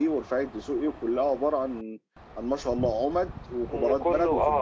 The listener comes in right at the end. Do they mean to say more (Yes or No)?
Yes